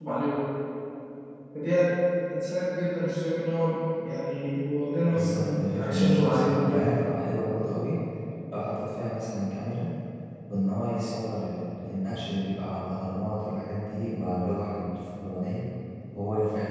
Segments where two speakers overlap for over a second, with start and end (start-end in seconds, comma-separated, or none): 5.0-6.8